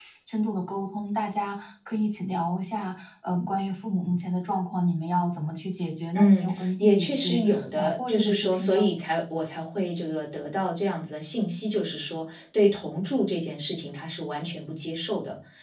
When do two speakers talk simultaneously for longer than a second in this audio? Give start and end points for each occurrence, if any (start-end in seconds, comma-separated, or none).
6.1-8.9